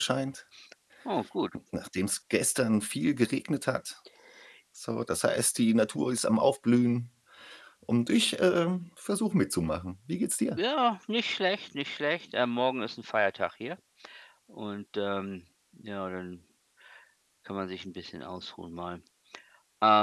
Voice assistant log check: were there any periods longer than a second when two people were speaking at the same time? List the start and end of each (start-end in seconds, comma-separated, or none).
none